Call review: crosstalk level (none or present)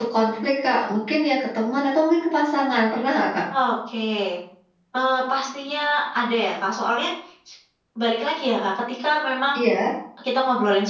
none